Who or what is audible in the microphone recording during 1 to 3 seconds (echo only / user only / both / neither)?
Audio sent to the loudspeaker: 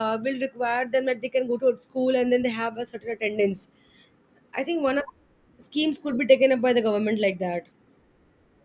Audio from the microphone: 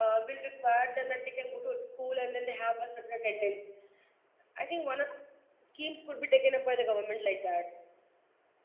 echo only